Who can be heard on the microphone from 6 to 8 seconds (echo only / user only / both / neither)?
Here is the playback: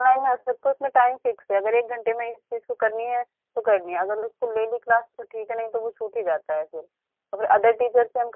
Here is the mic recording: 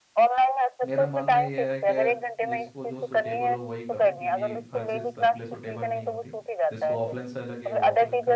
both